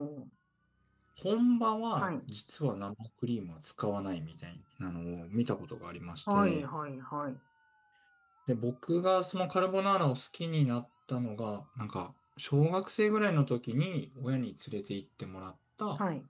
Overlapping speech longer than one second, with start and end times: none

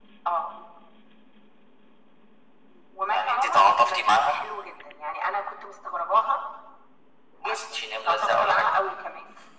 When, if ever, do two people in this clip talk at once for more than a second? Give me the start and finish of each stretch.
3.1-4.4, 7.4-8.7

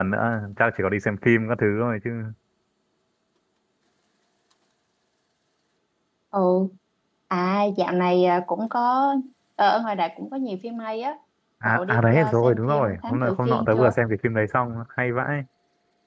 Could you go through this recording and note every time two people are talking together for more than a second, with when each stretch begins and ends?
11.7-13.9

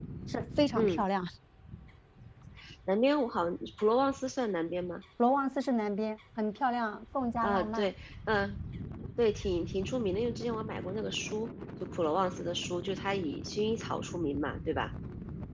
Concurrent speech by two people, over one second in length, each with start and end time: none

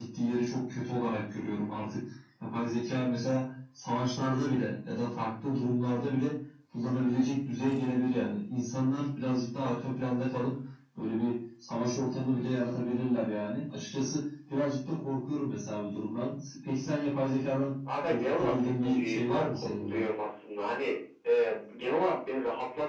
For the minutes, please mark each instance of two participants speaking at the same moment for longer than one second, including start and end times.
18.1-20.0

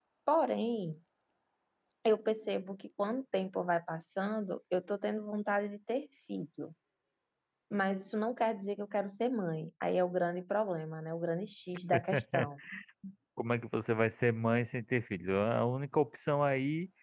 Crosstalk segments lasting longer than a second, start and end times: none

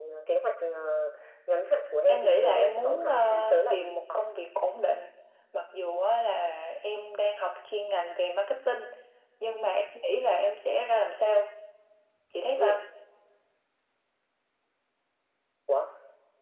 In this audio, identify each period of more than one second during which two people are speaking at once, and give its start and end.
2.1-3.9

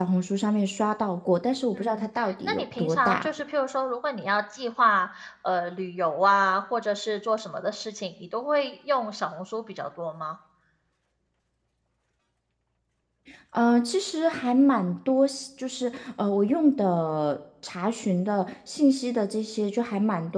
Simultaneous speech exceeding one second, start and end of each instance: 1.7-3.3

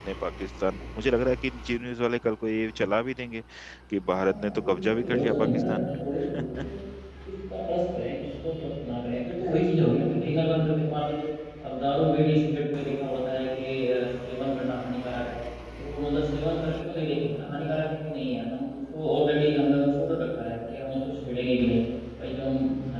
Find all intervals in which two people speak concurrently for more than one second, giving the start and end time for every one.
4.1-5.9

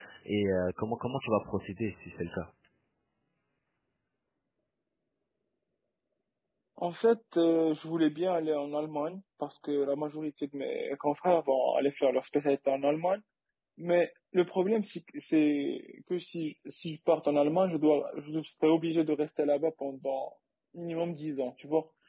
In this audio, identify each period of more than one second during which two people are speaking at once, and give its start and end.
none

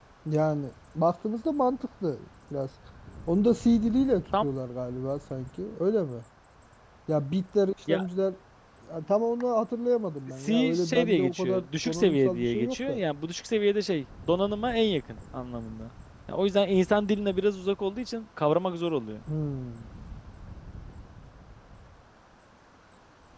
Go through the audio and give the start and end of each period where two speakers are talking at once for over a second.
10.4-13.0

